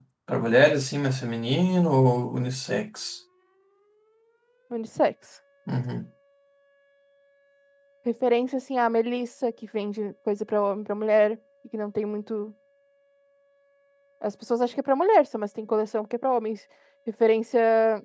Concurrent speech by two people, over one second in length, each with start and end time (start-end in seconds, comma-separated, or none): none